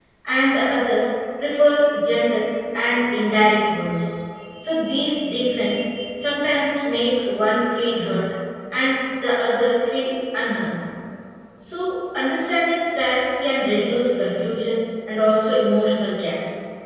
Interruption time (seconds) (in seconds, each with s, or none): none